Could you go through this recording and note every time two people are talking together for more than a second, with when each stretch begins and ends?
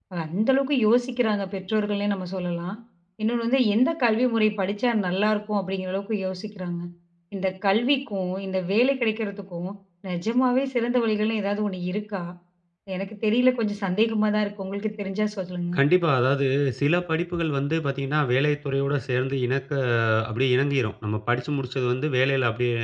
none

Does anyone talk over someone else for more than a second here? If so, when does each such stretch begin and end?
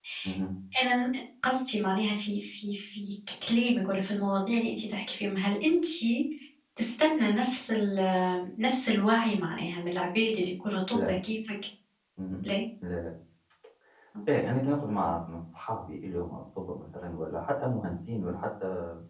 none

